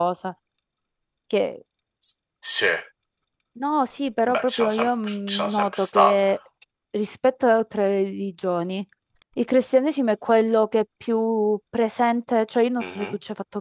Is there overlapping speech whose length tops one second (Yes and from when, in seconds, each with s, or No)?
Yes, from 4.3 s